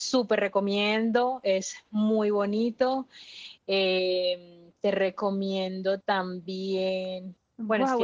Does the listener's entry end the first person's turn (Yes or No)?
Yes